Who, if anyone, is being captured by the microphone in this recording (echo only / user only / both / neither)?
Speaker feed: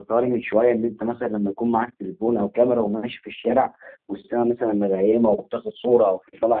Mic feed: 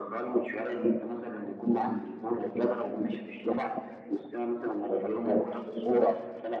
echo only